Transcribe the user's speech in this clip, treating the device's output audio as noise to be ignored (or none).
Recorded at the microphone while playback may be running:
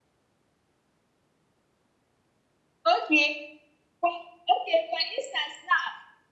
Okay. For okay for instance now